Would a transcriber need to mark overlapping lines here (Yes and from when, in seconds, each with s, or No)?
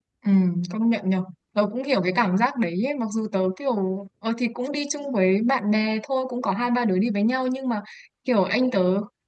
No